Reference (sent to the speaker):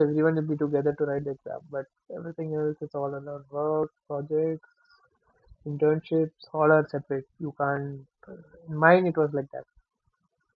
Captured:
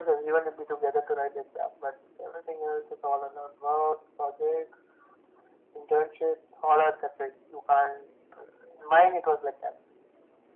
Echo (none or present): present